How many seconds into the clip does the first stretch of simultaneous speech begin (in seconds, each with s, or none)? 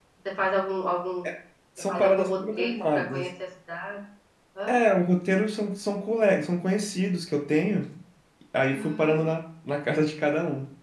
1.8 s